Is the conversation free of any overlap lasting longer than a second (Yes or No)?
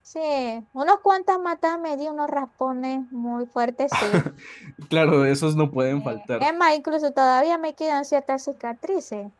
Yes